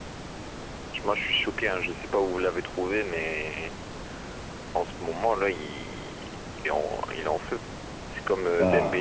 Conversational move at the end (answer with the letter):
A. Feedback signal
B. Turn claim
A